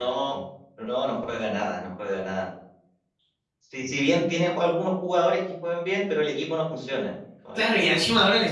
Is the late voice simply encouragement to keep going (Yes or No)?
No